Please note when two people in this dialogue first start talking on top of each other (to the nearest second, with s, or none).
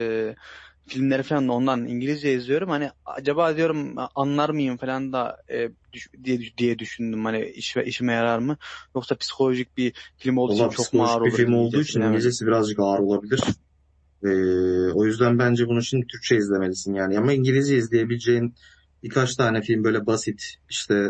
10 s